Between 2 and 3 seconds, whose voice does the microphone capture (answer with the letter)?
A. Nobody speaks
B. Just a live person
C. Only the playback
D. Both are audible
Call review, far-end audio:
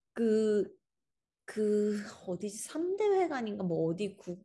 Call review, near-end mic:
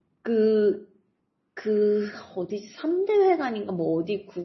C